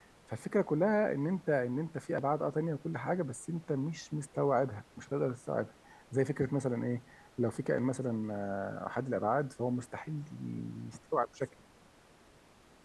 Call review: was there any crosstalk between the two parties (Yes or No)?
No